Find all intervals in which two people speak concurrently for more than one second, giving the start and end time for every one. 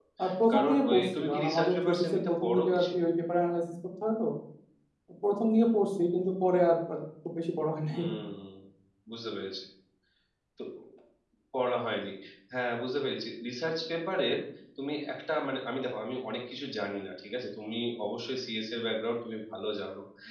0.5-2.9

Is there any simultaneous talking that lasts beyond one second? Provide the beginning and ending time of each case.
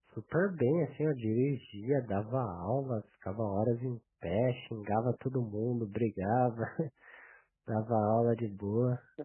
none

